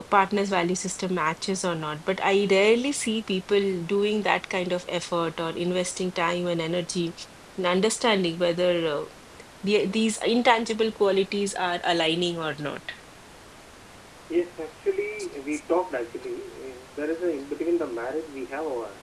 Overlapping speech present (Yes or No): No